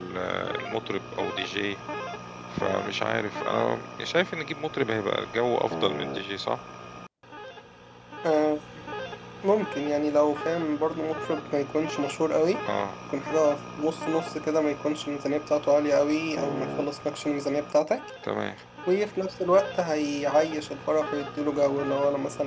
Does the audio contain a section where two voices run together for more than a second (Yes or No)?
No